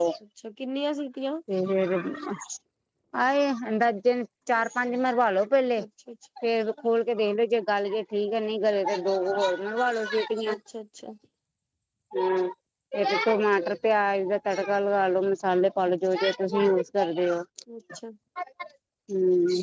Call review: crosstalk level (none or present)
none